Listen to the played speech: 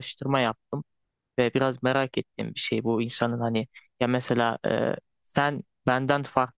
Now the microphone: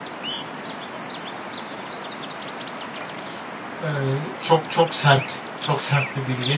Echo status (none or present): none